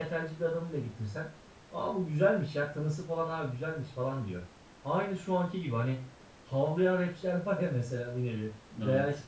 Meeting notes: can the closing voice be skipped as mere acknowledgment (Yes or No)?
Yes